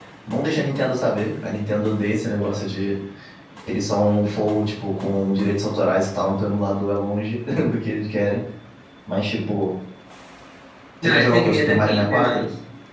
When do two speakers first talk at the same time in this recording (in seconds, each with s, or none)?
11.0 s